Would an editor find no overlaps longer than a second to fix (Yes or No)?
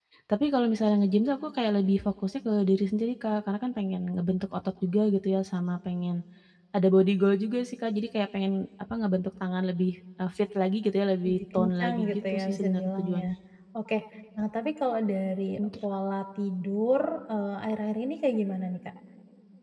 No